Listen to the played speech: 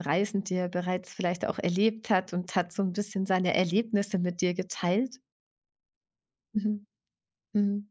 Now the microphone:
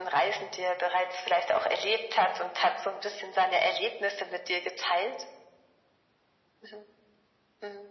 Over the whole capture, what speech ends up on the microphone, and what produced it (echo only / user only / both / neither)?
echo only